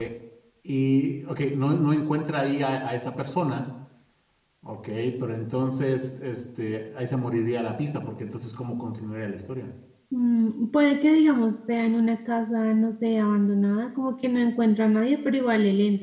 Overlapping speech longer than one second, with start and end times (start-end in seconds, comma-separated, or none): none